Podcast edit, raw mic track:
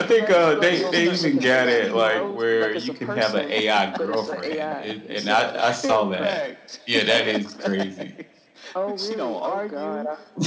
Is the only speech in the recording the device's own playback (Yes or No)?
No